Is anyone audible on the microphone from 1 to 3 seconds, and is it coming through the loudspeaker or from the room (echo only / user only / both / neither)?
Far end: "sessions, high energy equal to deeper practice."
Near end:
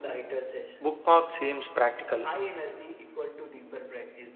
both